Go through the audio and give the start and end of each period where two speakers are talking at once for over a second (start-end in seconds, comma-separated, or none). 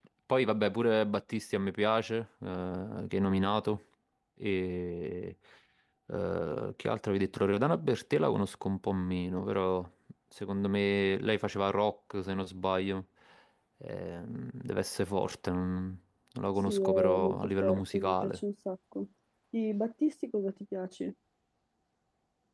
16.7-18.4